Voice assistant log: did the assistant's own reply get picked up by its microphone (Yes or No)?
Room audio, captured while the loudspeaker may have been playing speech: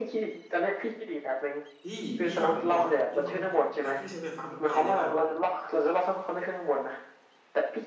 Yes